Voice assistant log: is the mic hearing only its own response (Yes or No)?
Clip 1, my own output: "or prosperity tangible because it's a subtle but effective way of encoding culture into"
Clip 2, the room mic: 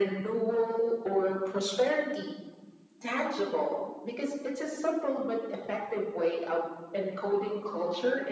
Yes